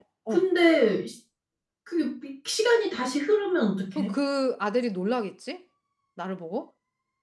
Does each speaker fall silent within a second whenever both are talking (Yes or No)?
Yes